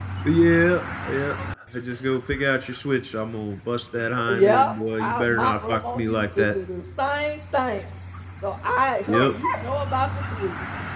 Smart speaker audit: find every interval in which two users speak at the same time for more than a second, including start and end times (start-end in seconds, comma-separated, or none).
4.0-6.5